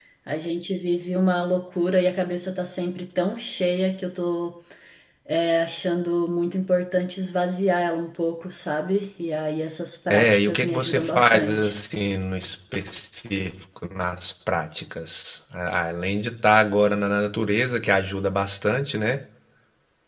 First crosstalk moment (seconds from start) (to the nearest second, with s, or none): 10 s